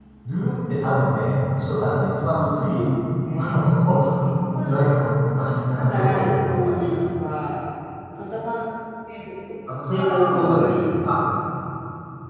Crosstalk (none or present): present